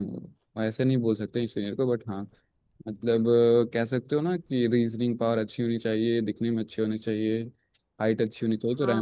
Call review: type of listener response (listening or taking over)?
taking over